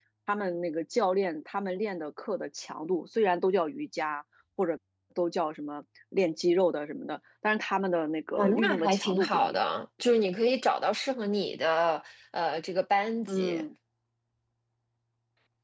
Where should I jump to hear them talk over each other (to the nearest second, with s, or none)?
8 s